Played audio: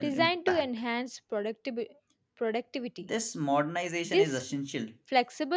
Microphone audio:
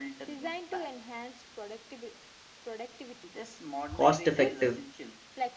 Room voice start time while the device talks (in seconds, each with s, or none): 3.9 s